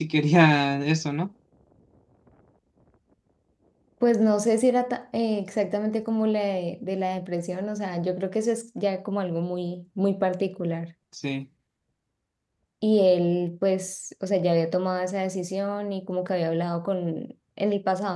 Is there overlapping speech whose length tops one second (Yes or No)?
No